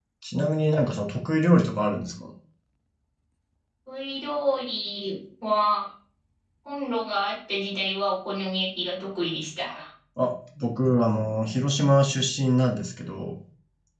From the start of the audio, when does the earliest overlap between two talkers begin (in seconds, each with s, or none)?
none